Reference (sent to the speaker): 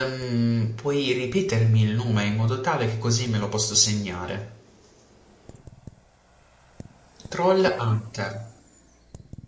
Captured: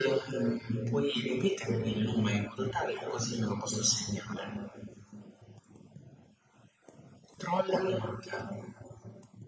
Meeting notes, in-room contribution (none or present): none